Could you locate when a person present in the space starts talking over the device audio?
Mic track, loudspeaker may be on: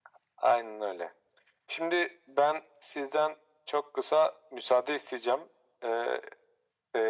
none

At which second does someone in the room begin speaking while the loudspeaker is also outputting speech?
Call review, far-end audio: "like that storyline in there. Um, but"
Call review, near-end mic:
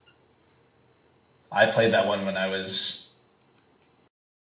1.5 s

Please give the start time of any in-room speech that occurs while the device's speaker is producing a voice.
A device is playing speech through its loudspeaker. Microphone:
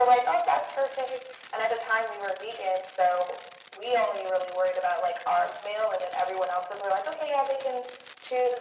none

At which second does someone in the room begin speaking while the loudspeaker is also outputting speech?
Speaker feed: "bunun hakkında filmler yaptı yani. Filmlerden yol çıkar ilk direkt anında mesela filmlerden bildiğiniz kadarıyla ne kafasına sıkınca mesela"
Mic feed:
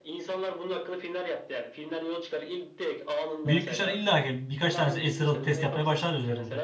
3.4 s

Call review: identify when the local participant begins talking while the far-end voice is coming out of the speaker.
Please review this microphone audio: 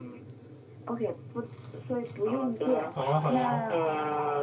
2.9 s

